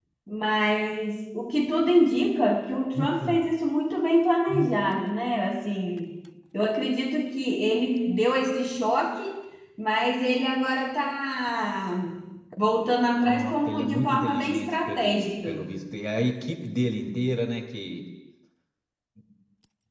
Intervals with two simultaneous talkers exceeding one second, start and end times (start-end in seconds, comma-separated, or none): 13.2-15.6